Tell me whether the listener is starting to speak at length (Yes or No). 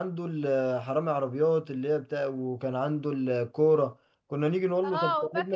Yes